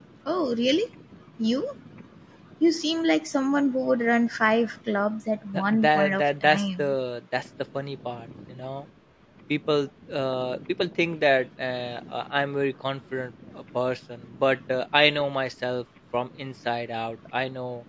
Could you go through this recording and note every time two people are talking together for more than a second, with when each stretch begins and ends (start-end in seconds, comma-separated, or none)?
5.7-7.0